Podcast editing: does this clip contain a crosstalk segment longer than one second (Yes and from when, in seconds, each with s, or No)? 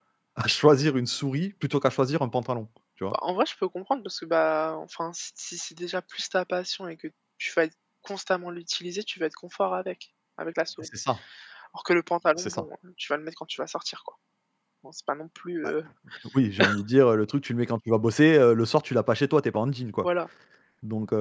No